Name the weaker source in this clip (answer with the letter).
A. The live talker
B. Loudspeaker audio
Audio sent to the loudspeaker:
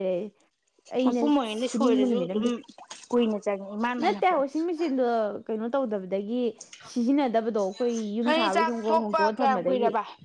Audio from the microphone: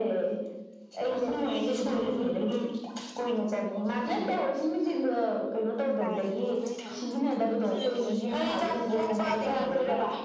A